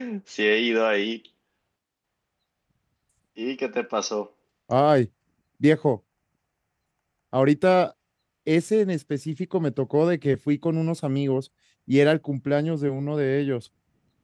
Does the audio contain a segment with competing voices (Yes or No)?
No